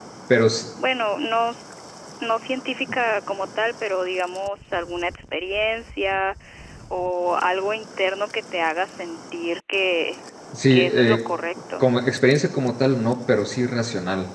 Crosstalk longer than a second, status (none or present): none